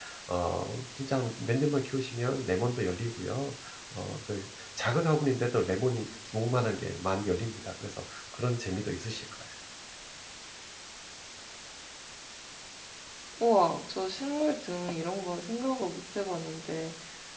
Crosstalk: none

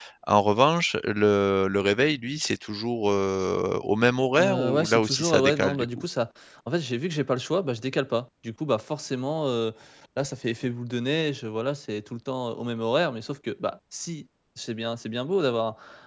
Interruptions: present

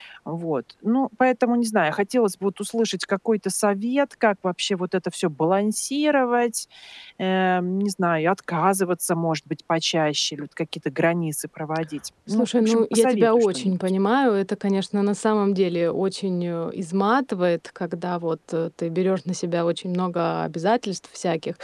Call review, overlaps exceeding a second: present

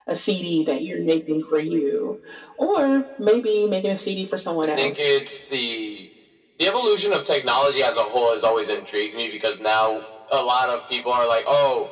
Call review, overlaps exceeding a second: none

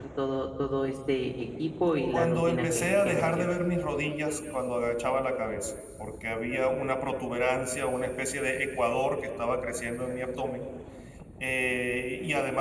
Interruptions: present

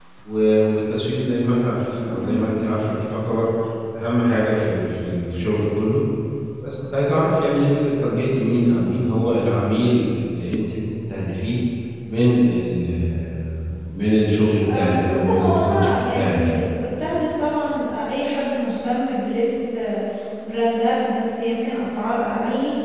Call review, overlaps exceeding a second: present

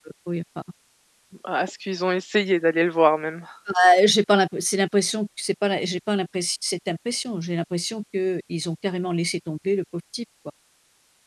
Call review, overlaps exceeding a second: none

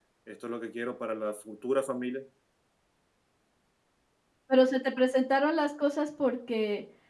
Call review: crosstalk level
none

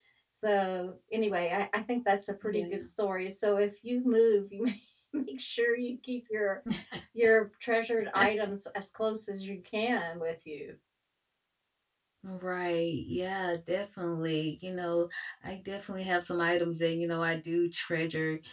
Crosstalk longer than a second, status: none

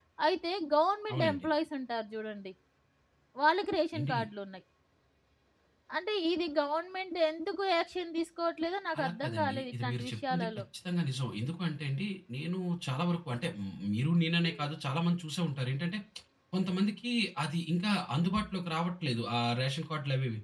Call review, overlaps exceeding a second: present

